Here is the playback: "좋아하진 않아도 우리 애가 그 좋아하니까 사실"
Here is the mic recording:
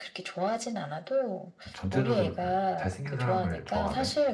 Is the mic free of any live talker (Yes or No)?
No